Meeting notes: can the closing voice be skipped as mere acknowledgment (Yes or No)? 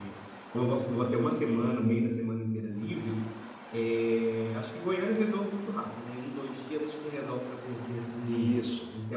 Yes